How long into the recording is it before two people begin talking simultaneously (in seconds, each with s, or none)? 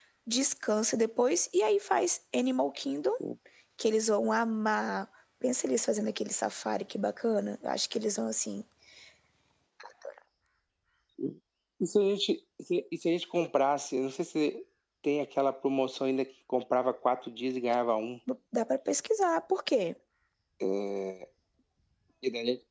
none